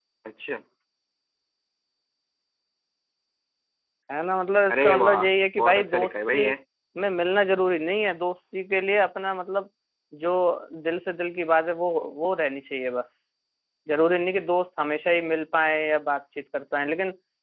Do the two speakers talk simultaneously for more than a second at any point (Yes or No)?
Yes